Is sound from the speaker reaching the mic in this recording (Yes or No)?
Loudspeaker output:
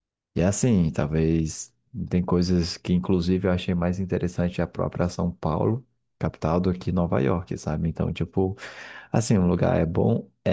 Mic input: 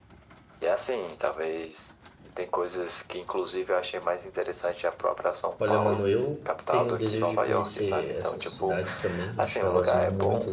Yes